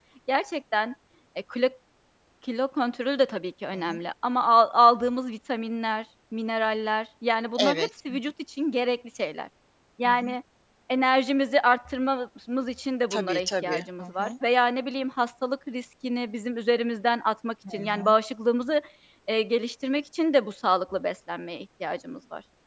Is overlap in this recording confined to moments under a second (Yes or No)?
No